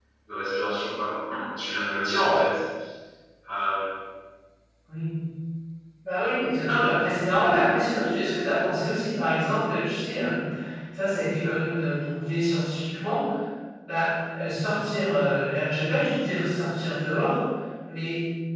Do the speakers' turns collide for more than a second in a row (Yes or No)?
No